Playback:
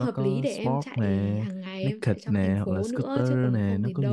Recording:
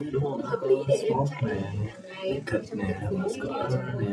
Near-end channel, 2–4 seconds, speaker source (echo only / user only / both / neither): both